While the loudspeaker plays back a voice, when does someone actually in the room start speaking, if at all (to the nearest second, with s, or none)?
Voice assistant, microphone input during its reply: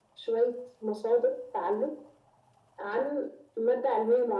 none